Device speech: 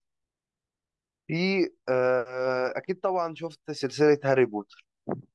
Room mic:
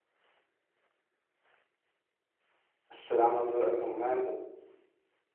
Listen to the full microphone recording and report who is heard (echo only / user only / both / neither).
user only